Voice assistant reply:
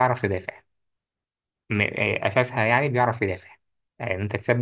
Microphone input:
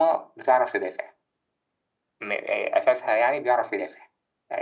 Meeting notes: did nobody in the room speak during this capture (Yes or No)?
Yes